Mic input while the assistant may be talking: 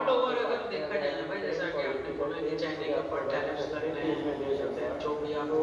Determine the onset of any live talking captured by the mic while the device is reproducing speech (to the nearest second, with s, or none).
none